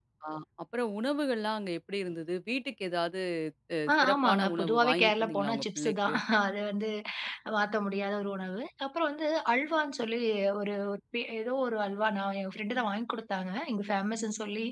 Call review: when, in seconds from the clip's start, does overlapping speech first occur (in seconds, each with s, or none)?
3.9 s